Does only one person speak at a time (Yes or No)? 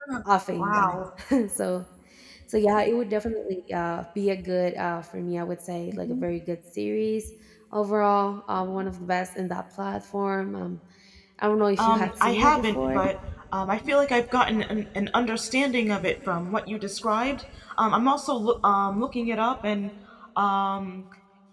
No